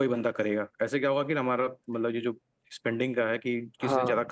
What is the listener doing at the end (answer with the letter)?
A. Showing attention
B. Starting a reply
A